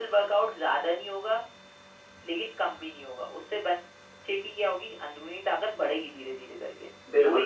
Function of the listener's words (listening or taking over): taking over